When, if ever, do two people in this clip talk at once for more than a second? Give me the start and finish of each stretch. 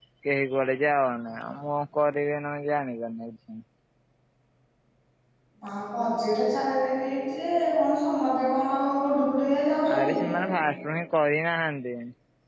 none

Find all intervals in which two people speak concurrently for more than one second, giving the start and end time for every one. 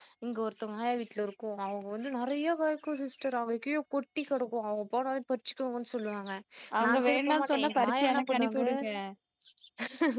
6.8-8.6

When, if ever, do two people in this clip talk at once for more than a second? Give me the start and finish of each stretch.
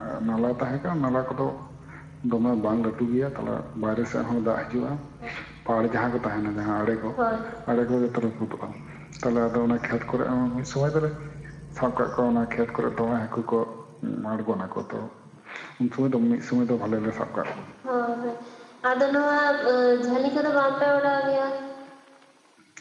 none

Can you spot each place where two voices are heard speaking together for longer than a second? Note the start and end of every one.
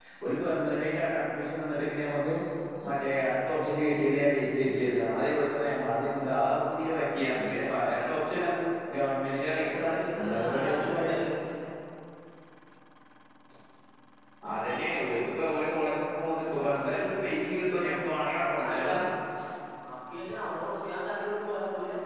9.6-11.1

